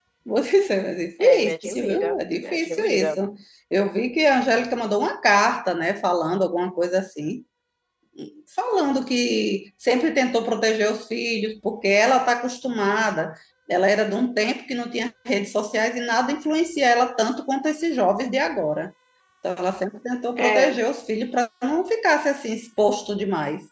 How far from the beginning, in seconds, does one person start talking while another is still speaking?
1.5 s

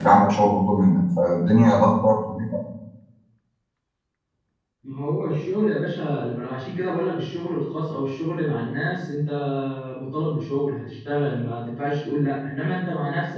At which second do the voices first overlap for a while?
none

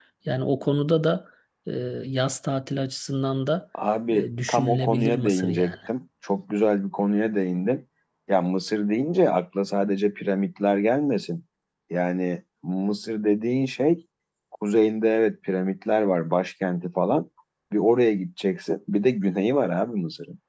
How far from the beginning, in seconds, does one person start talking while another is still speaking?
4.1 s

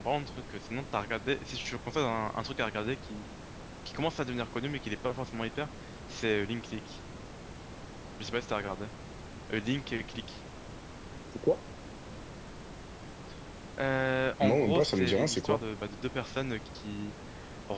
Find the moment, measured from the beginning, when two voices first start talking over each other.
14.4 s

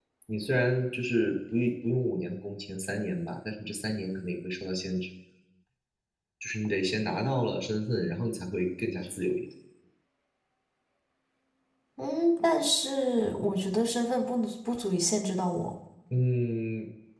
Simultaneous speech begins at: none

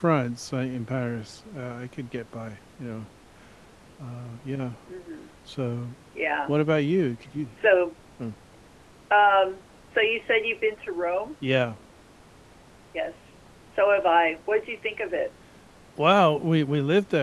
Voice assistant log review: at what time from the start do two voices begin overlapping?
none

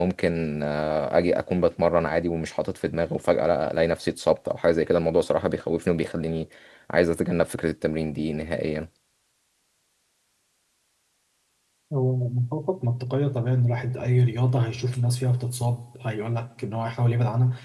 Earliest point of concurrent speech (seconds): none

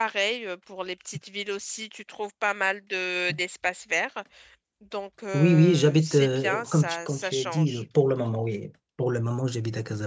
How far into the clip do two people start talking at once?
5.3 s

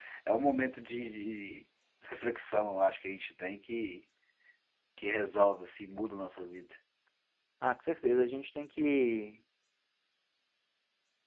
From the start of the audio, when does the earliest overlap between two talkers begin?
none

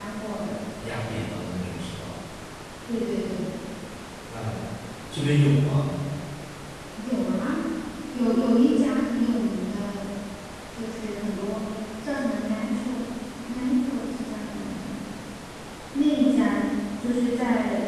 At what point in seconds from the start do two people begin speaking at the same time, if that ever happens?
none

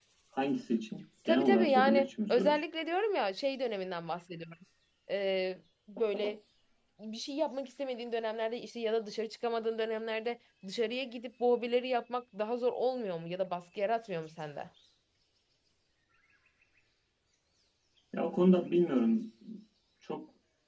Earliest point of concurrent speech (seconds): 1.2 s

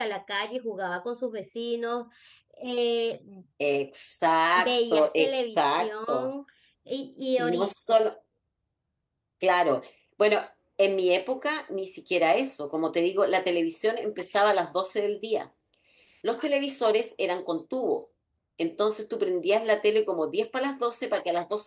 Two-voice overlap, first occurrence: 4.6 s

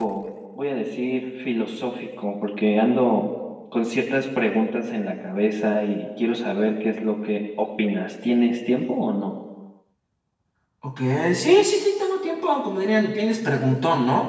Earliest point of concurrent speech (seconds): none

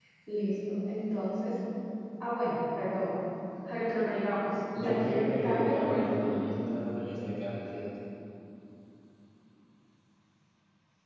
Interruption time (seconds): 4.8 s

